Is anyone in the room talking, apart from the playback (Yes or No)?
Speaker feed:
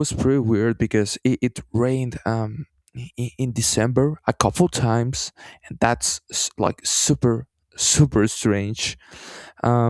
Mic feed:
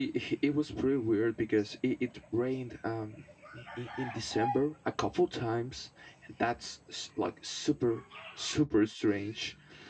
No